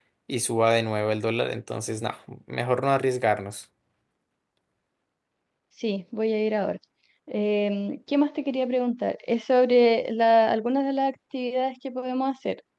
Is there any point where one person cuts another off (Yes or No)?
No